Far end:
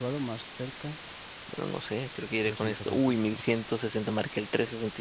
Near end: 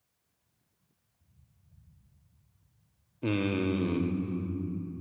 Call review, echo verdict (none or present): none